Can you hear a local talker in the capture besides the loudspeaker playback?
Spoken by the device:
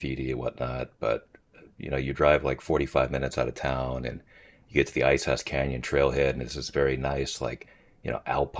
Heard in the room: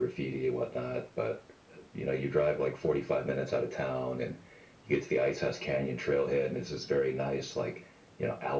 No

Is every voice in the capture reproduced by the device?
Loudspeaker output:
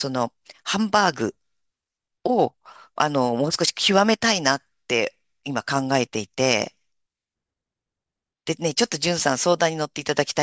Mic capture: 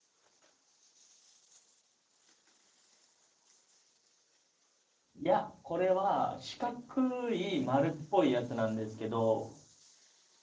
No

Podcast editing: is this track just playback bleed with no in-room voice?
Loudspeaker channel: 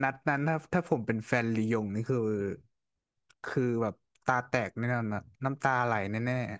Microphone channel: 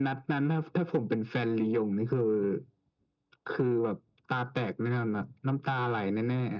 Yes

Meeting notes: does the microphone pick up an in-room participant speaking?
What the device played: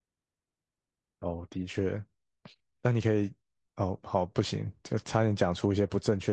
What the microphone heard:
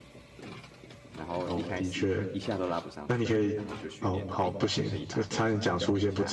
Yes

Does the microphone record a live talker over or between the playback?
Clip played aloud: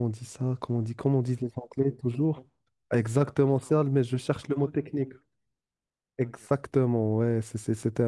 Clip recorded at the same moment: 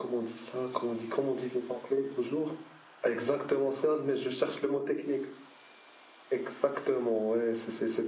No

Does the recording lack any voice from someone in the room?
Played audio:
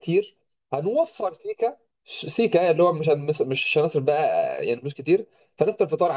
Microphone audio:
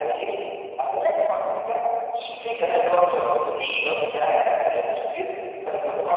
Yes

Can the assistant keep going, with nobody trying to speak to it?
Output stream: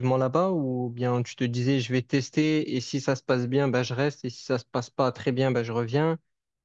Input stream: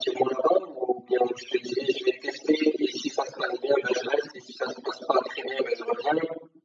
Yes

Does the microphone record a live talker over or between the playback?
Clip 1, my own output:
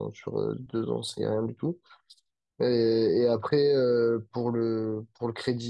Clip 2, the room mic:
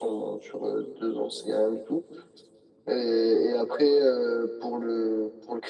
No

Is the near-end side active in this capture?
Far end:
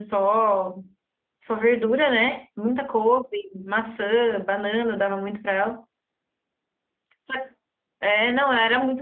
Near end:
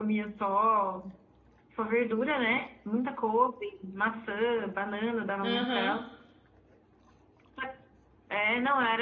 Yes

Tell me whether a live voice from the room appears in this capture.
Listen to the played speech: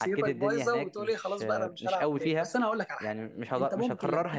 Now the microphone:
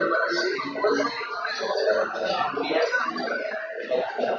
No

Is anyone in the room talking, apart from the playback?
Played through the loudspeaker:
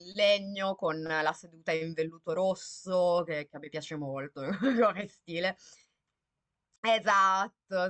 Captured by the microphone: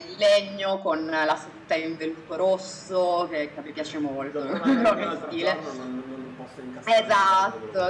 Yes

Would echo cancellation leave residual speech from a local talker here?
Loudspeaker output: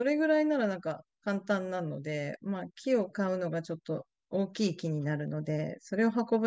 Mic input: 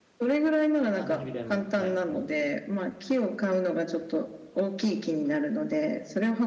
Yes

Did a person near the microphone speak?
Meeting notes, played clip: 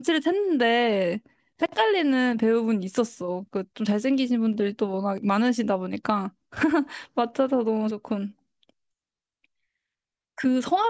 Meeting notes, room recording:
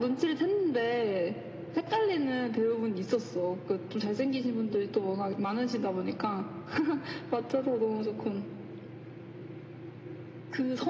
No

